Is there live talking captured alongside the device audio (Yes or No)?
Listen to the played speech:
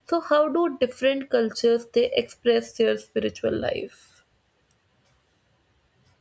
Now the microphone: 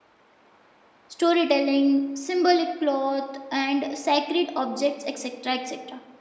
Yes